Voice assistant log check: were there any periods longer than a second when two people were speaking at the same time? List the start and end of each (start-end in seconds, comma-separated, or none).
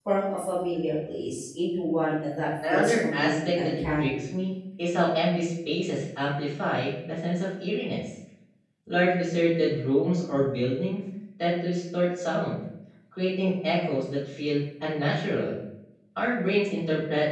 2.7-4.2